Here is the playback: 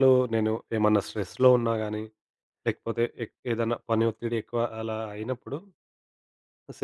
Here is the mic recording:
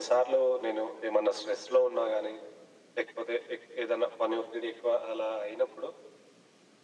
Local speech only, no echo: none

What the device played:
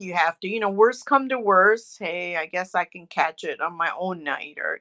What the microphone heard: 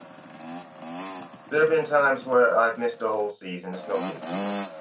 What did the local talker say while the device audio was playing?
There have been times where I've missed a whole season. It's no big deal.

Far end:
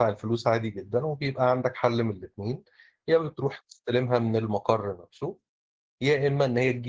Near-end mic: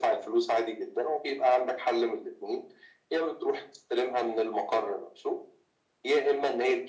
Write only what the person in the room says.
none

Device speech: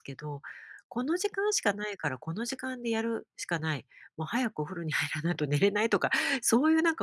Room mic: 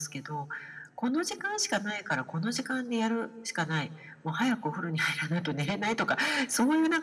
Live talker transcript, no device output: none

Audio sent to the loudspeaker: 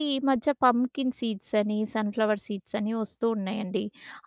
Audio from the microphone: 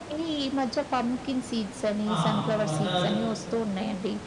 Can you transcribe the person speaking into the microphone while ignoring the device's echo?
ఆహా! అంటే మసాలాలు తె

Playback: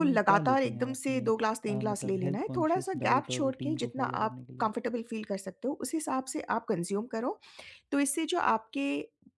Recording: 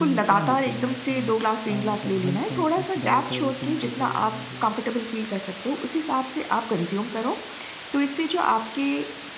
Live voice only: none

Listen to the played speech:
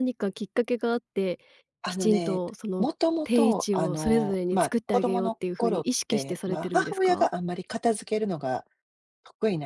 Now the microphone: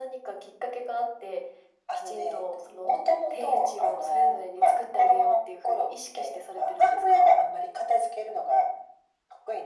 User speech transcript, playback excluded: none

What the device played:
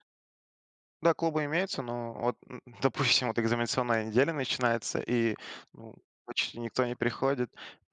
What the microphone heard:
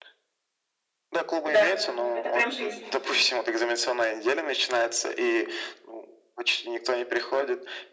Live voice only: Да, это прям жизнь.

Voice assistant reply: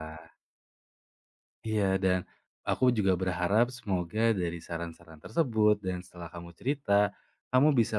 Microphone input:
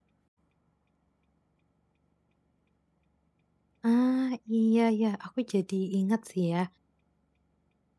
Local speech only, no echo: Ah, iya ya, aku jadi ingat sih ya.

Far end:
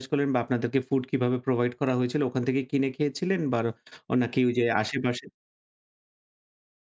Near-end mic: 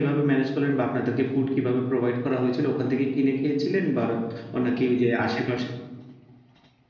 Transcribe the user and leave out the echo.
none

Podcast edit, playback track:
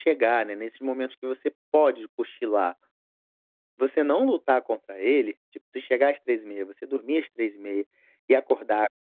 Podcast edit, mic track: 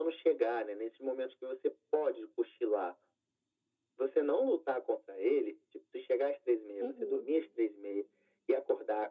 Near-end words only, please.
Uhum.

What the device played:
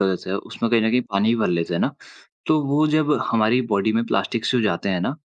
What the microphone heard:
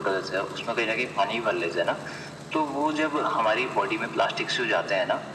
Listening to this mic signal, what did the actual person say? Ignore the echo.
none

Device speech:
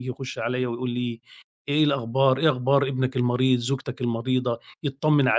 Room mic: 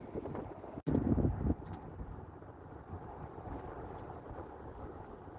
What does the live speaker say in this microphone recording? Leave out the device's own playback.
none

